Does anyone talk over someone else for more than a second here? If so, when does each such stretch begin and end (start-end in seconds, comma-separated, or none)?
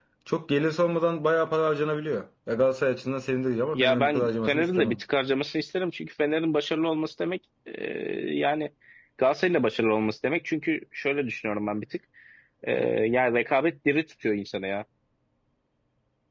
3.7-5.0